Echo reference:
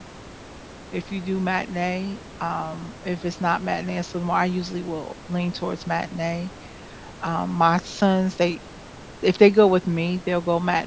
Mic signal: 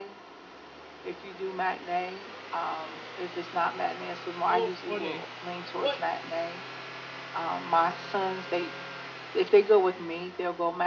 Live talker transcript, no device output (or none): Oh, funny. What